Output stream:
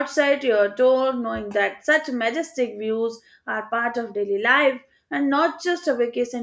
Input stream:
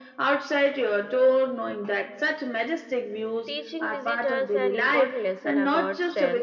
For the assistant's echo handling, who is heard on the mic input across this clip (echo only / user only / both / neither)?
both